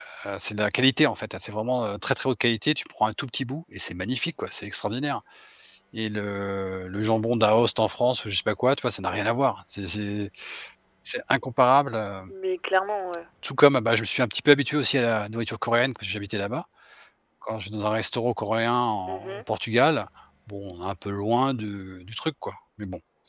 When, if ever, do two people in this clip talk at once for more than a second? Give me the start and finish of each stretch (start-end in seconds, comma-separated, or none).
none